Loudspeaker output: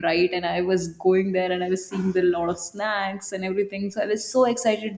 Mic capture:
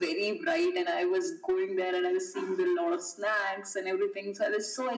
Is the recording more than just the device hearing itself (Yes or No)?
No